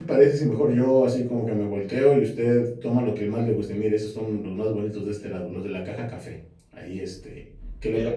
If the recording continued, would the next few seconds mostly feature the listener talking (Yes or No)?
Yes